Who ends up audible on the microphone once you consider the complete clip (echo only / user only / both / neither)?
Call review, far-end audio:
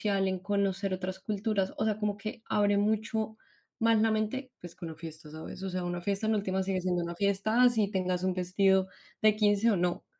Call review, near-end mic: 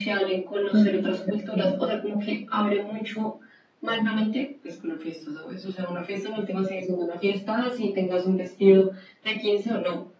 both